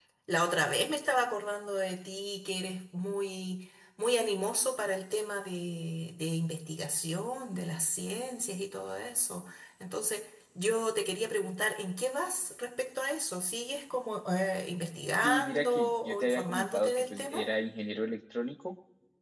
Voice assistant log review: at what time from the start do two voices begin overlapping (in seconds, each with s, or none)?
15.2 s